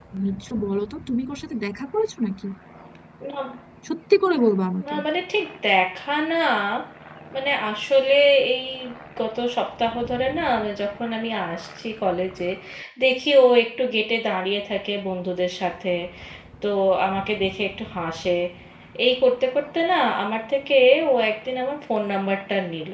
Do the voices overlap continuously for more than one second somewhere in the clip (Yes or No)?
No